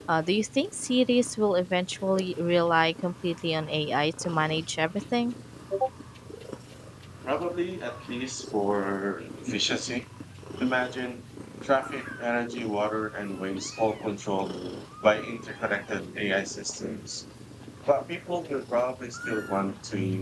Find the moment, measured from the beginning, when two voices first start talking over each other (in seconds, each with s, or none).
none